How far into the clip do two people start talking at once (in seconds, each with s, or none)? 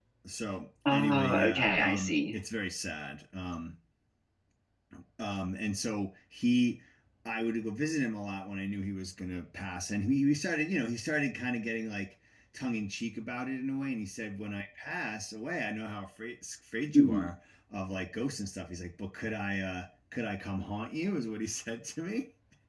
0.9 s